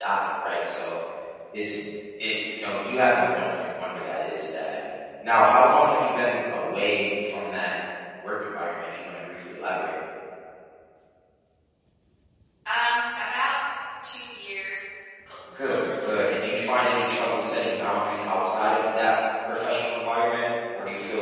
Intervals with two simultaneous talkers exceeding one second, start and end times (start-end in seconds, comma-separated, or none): 15.6-16.9